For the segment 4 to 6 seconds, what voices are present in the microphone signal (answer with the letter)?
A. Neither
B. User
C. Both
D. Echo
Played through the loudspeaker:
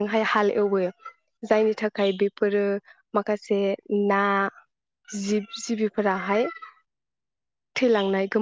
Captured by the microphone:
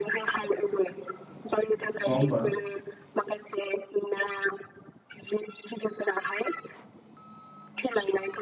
D